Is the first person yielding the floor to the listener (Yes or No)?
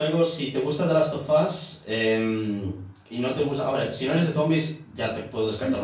Yes